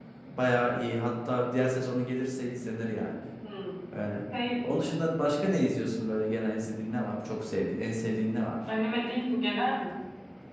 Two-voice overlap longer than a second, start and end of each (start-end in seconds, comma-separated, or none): none